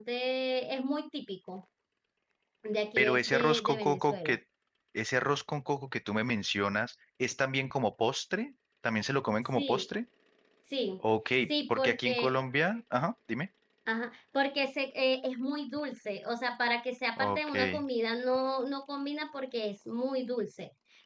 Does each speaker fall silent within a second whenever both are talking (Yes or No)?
No